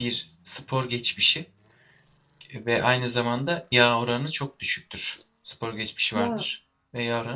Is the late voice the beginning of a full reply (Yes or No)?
No